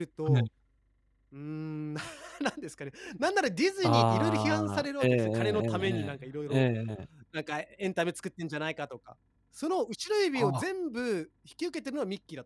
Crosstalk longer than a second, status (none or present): present